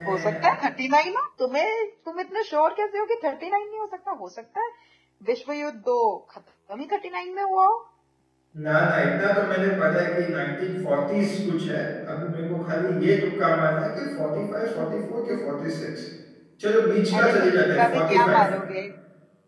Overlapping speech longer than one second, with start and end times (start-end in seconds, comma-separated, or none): 17.2-18.4